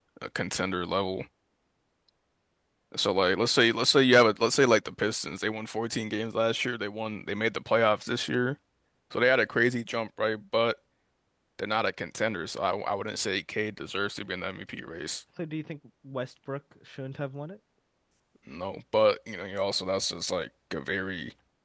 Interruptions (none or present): none